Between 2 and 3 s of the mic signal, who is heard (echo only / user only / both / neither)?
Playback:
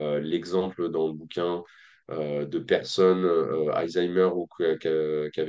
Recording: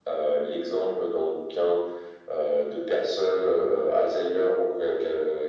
echo only